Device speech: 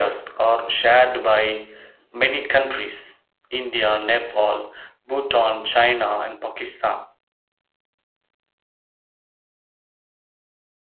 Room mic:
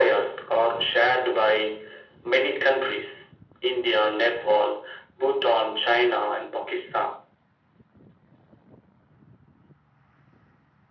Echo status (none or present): present